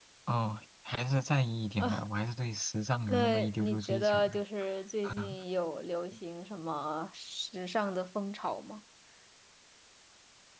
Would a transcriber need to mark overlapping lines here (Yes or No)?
Yes